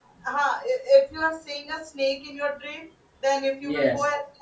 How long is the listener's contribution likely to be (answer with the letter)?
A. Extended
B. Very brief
B